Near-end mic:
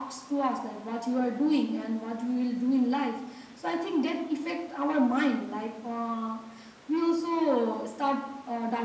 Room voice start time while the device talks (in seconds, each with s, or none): none